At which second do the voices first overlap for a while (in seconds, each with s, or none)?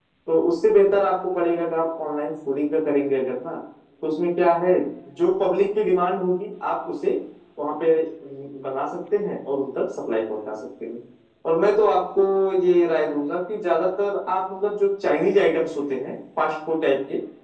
none